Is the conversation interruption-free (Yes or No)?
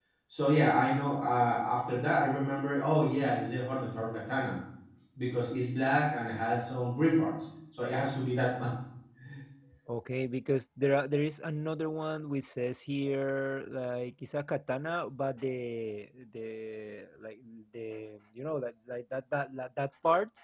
Yes